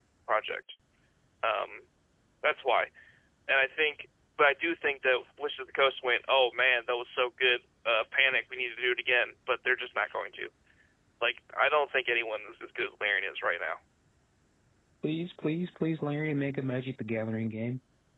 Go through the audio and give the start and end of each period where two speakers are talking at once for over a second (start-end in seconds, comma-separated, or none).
none